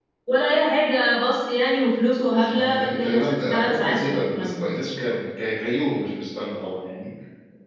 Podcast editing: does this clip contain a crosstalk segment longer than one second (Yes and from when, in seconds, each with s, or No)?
Yes, from 2.4 s